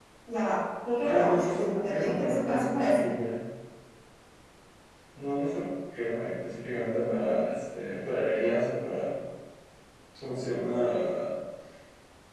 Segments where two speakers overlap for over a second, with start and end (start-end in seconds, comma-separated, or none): 1.0-3.1